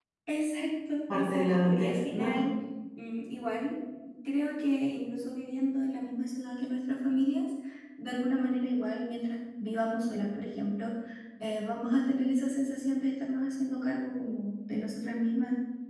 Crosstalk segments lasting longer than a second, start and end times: 1.1-2.5

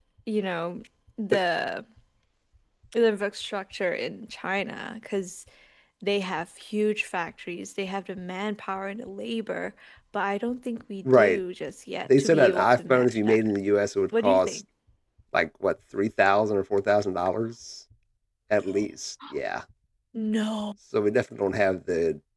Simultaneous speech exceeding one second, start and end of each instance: 12.0-13.4

